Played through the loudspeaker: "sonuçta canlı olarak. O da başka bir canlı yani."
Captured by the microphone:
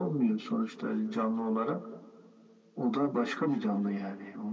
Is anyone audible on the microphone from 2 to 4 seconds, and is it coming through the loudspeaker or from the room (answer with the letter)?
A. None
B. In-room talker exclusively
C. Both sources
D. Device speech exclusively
D